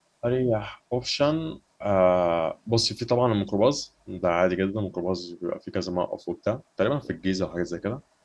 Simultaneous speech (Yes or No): No